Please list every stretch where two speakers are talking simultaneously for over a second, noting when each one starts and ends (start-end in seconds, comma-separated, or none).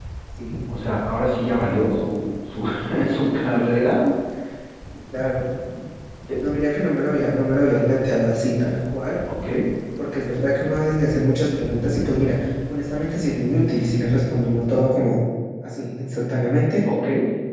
none